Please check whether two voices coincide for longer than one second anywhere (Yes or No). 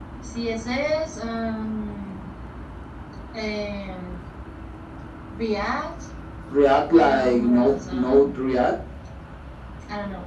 Yes